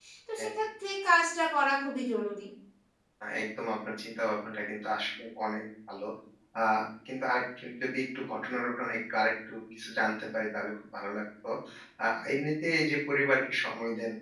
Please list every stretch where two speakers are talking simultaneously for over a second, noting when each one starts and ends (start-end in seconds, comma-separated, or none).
none